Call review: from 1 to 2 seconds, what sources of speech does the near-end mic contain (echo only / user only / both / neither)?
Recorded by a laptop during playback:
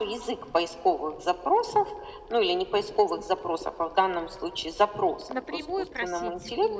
echo only